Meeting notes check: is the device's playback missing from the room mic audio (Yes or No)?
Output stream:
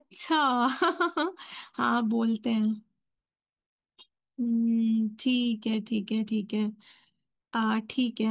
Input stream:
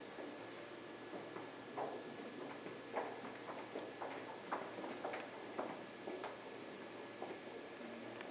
Yes